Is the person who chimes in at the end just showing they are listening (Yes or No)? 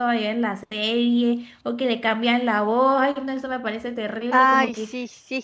No